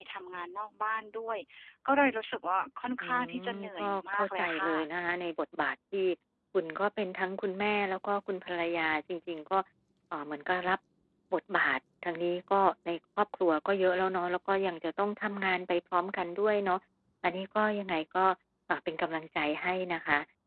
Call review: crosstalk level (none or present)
present